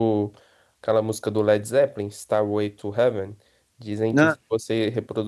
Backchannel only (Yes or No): Yes